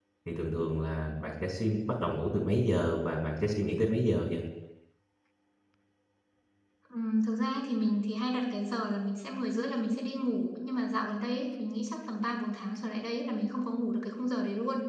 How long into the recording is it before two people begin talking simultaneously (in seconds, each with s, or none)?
none